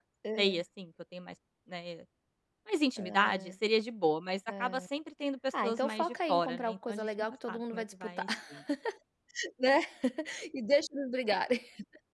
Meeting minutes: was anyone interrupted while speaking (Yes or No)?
Yes